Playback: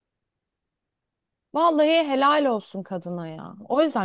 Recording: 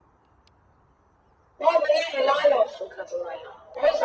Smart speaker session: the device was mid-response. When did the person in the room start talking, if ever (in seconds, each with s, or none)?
none